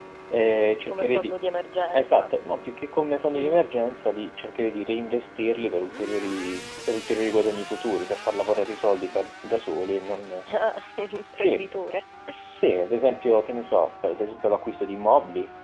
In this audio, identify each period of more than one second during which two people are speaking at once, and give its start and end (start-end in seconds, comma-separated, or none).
none